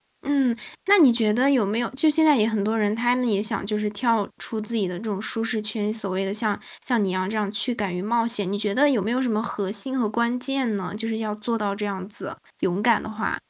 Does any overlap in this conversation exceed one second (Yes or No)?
No